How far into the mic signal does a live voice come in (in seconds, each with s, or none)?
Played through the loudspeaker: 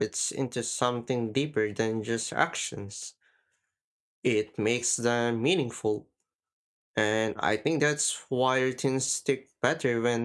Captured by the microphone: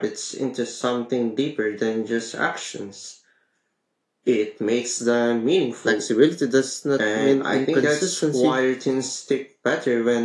5.8 s